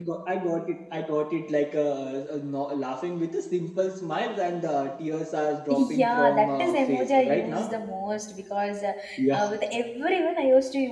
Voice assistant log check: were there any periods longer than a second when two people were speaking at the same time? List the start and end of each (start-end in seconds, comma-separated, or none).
5.7-7.7